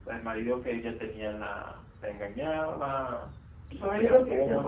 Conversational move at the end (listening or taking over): taking over